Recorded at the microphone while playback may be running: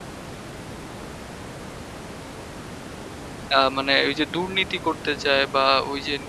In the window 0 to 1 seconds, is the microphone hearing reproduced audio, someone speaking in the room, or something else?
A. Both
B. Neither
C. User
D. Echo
B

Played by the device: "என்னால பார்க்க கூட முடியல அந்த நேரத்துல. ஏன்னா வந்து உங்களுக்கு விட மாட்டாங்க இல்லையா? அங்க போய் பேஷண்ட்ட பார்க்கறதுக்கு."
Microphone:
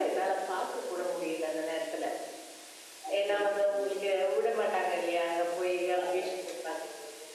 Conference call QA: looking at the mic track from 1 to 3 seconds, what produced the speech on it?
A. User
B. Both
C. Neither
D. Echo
D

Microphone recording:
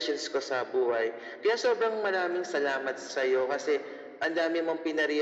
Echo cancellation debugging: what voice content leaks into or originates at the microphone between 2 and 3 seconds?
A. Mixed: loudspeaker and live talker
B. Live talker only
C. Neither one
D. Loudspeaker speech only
D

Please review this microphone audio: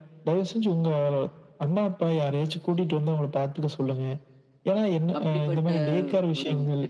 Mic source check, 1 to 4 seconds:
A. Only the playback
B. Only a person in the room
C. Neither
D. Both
A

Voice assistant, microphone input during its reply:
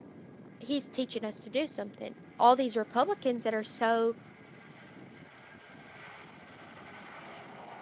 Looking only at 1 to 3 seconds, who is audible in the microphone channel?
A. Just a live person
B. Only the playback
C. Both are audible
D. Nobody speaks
A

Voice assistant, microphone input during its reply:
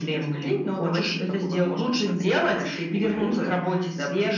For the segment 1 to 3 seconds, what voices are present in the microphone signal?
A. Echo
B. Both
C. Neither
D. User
A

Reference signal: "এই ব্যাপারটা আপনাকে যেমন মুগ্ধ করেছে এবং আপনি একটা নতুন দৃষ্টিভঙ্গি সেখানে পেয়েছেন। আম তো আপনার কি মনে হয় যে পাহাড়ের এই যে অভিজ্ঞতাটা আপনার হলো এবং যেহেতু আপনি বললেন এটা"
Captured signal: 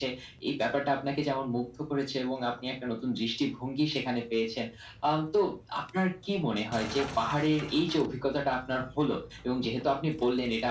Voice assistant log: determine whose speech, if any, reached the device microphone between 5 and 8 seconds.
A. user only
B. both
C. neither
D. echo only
D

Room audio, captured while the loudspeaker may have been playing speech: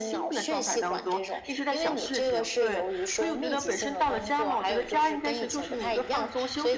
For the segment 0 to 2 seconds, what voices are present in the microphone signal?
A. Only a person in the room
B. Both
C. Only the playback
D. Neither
C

